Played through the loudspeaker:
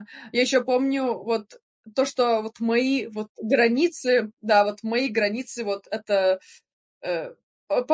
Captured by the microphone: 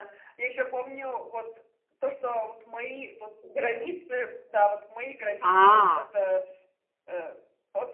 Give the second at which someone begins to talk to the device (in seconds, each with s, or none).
5.4 s